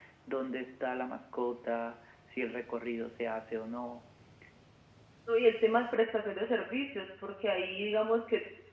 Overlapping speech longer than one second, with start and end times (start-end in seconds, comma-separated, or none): none